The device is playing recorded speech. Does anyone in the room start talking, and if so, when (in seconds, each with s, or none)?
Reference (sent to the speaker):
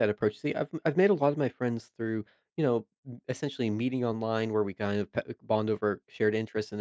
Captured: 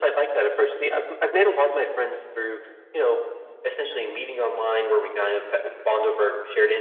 none